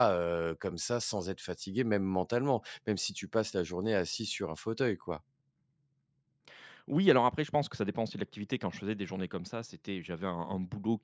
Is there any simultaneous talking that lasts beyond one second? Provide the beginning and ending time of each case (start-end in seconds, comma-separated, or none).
none